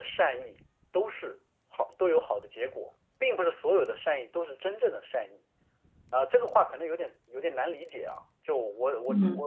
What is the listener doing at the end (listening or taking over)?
taking over